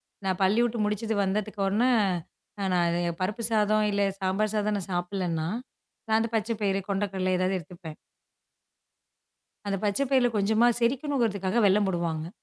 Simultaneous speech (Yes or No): No